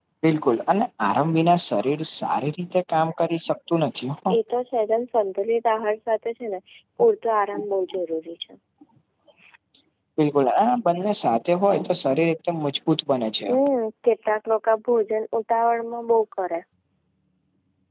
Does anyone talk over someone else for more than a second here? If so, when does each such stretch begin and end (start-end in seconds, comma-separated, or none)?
none